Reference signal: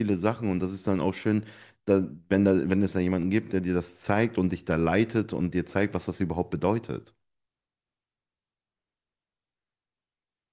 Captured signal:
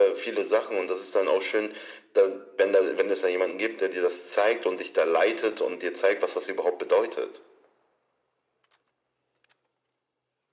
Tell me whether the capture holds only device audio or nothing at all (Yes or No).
Yes